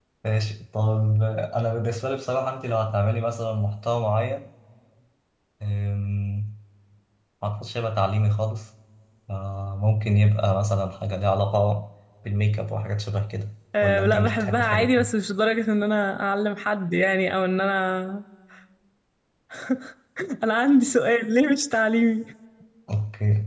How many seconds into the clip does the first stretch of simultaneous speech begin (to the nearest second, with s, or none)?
14 s